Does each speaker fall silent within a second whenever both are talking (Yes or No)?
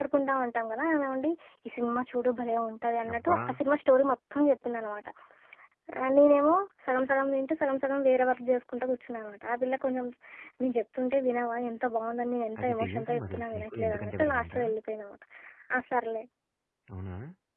No